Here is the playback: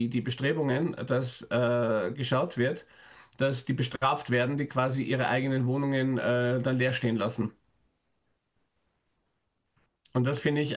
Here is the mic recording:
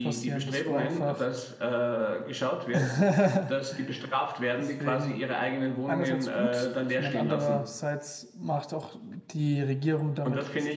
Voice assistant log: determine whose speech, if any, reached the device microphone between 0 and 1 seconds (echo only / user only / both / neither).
both